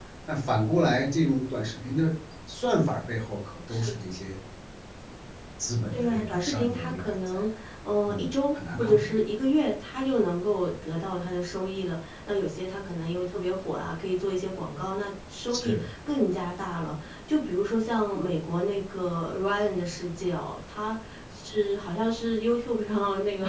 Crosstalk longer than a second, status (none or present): present